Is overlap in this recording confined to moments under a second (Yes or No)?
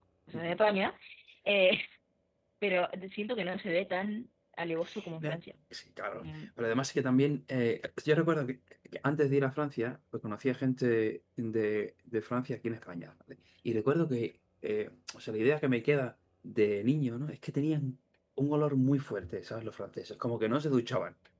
Yes